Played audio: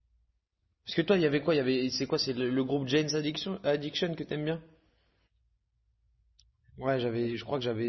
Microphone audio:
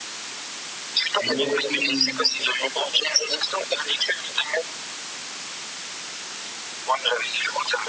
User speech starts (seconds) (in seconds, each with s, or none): 1.2 s